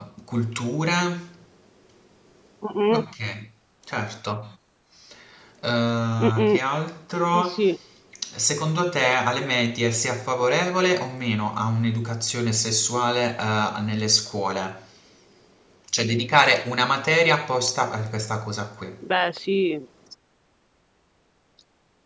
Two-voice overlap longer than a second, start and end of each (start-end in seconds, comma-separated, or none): none